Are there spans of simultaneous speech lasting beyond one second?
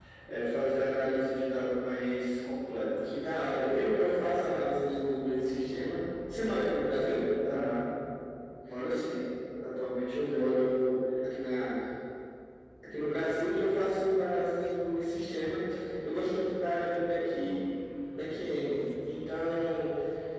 No

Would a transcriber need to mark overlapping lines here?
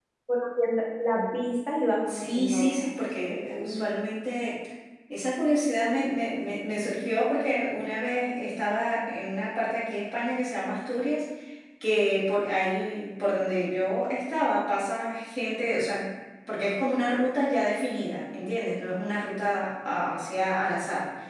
Yes, from 2.1 s

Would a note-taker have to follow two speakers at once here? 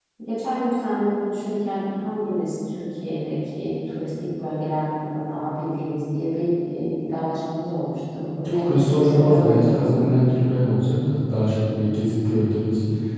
Yes, from 8.4 s

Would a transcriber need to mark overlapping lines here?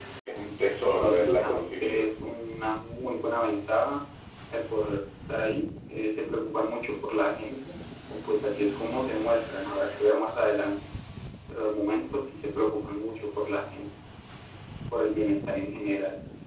Yes, from 0.8 s

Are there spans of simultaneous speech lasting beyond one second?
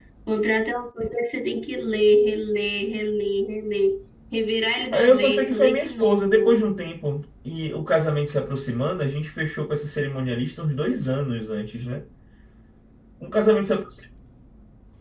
Yes, from 4.9 s

